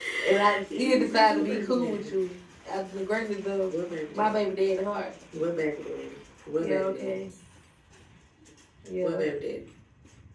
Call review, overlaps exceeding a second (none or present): present